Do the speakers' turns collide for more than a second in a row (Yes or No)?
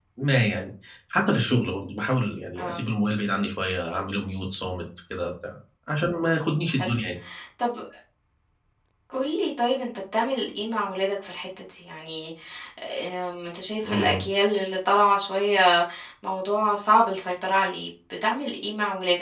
No